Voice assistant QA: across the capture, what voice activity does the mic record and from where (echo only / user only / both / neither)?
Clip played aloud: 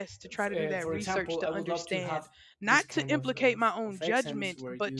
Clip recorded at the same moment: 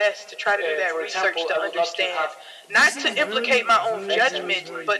both